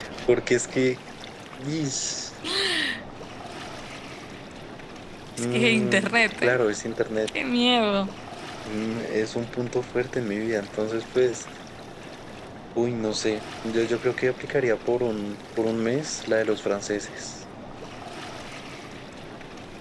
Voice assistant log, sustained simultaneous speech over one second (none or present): present